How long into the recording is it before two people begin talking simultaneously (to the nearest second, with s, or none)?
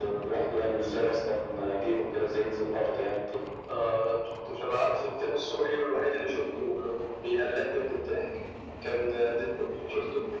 none